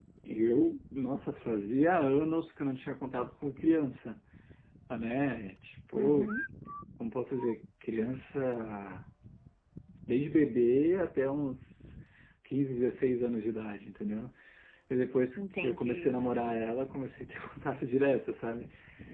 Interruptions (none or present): present